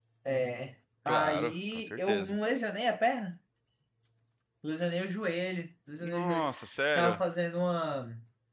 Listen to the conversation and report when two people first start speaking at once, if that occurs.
1.1 s

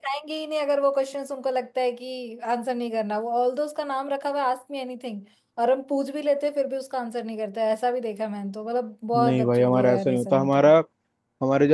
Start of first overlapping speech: 9.1 s

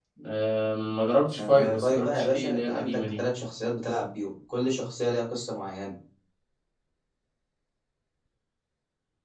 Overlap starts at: 1.4 s

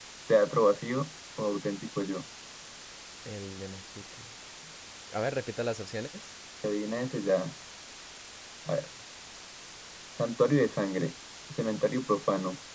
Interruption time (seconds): none

